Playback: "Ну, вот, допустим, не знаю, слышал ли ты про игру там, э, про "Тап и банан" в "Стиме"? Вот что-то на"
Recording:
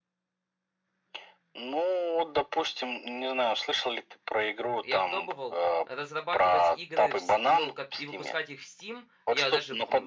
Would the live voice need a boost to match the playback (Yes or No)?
Yes